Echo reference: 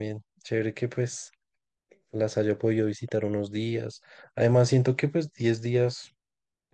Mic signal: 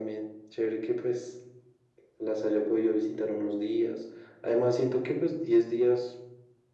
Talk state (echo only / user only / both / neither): echo only